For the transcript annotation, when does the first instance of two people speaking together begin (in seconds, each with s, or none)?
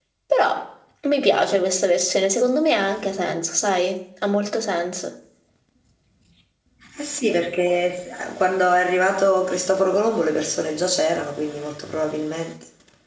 none